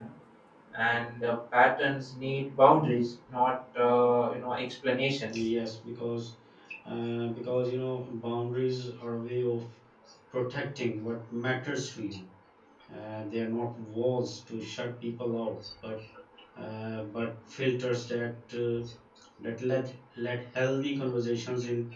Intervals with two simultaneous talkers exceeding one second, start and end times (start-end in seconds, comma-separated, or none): none